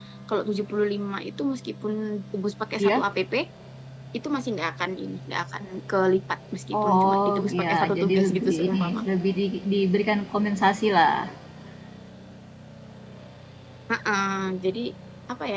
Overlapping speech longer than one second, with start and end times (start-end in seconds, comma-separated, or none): 6.8-9.0